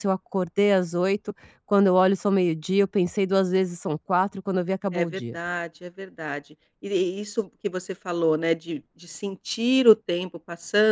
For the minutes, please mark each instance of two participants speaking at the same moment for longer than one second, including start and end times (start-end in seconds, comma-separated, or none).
none